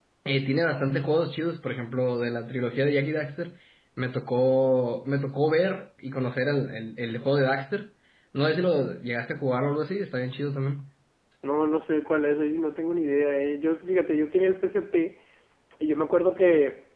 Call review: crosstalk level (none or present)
none